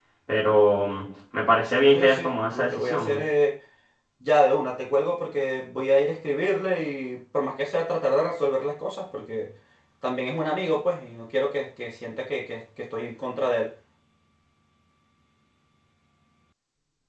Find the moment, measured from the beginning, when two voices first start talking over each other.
1.9 s

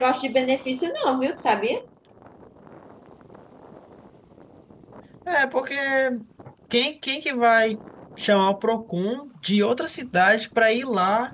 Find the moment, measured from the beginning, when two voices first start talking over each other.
none

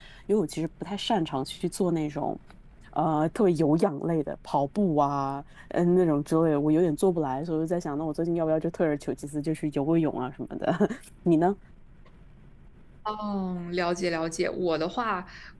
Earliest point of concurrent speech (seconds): none

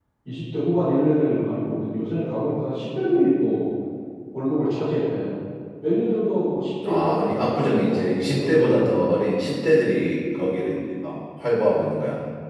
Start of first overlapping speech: 6.8 s

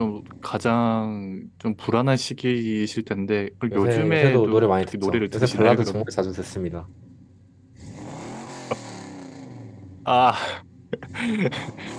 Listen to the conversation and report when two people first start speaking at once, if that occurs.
3.7 s

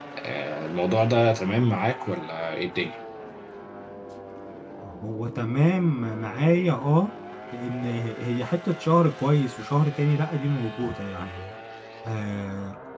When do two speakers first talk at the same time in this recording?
none

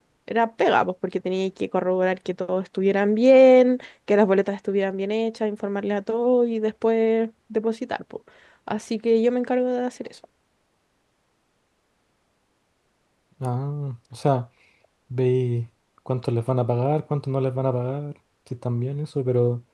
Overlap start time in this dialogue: none

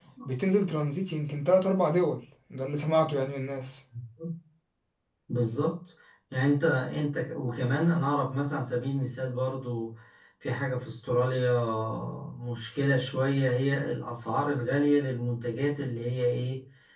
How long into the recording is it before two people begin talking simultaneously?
none

